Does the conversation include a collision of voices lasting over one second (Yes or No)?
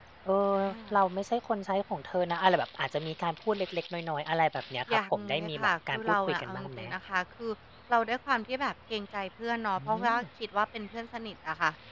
Yes